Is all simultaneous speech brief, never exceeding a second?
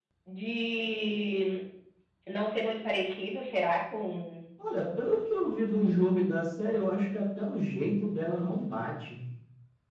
Yes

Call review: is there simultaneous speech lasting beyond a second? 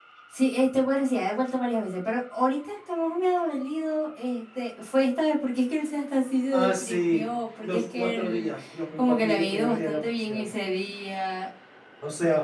Yes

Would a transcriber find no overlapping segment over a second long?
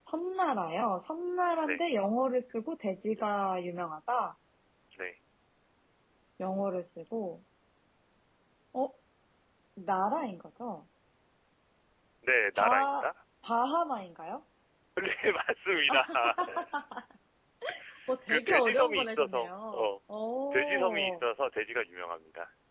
No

